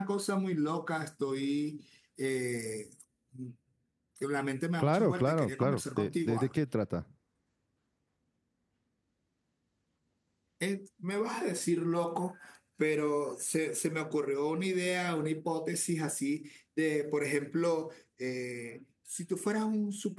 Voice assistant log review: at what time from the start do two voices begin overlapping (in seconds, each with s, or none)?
4.8 s